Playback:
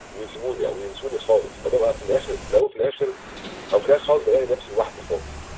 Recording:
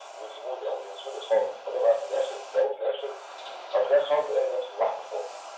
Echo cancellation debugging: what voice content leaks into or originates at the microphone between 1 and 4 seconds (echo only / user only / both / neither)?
echo only